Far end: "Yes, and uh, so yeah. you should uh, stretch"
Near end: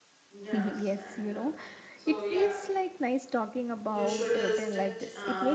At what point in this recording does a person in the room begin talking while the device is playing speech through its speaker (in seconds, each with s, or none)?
0.5 s